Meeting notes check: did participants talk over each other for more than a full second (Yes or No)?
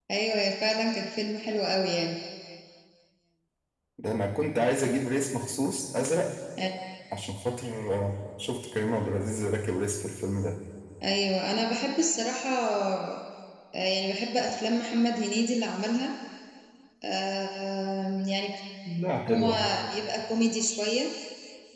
No